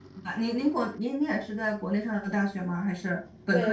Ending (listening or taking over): taking over